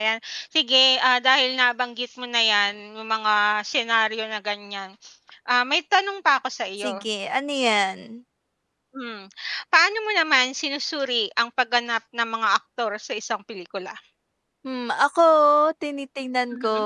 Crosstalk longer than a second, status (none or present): none